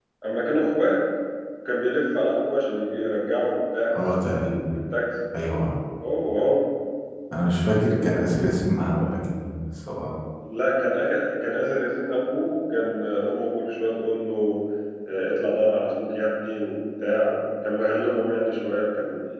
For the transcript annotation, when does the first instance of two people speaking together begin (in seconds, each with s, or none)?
none